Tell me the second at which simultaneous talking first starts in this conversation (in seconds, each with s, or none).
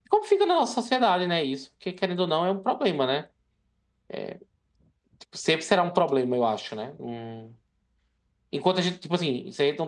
none